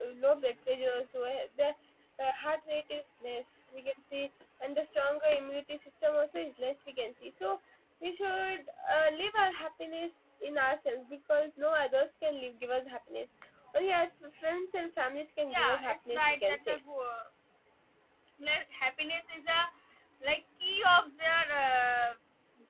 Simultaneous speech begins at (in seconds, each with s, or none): 15.5 s